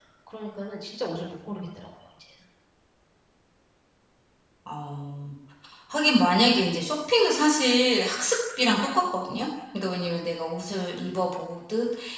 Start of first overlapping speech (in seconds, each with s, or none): none